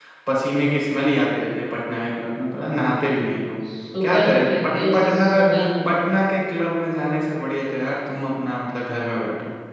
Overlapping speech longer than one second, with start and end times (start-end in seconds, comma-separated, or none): 4.0-5.5